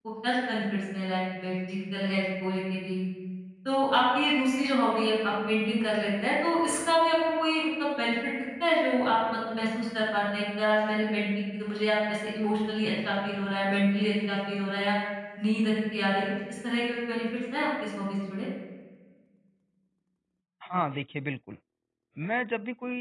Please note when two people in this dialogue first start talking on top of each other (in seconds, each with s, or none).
none